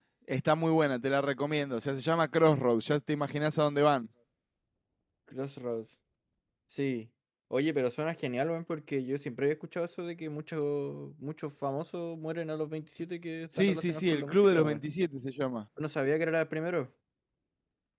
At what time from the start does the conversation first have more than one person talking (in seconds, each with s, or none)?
13.5 s